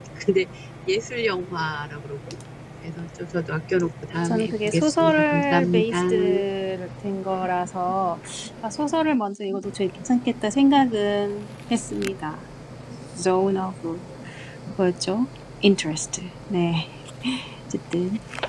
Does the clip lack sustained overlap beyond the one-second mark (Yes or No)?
No